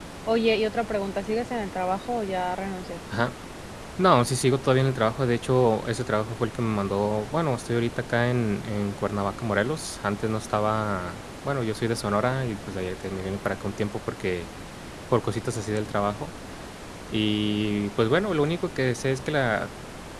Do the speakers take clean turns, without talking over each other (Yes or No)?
Yes